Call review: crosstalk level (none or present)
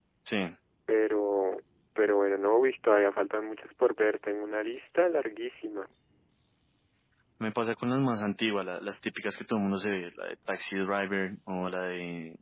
none